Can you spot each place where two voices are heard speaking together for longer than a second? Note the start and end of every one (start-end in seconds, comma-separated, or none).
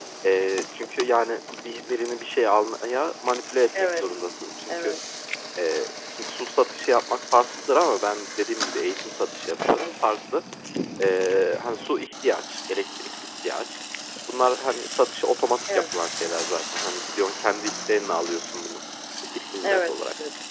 none